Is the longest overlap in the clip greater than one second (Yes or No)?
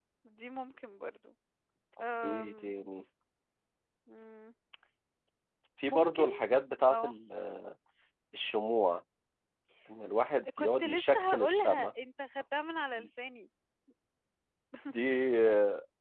Yes